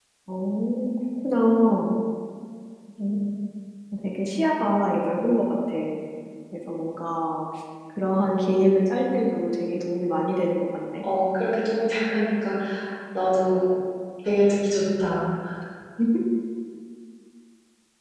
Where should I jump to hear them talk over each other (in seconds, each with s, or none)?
none